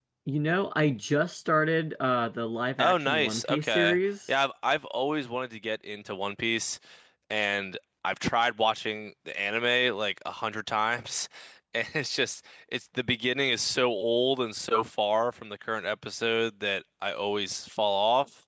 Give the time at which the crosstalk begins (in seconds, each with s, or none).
2.8 s